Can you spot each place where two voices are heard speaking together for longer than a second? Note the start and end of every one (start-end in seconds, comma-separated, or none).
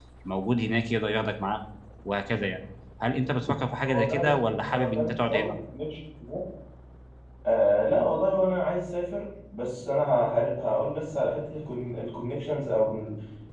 3.8-5.5